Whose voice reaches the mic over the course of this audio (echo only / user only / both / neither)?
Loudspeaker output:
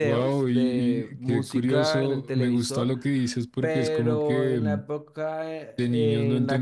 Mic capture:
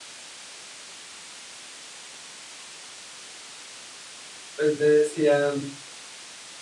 user only